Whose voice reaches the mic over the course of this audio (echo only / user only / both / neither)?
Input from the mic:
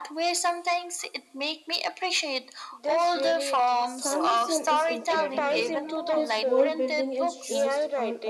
both